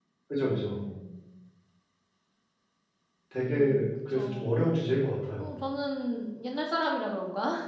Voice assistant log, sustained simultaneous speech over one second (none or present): present